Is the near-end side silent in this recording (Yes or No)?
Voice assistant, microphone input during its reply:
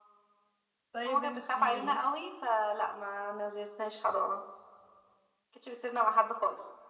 No